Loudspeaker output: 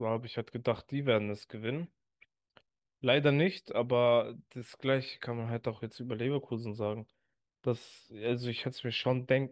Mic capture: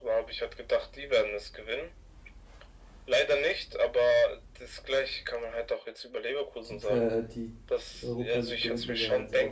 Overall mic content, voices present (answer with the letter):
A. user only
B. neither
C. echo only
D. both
D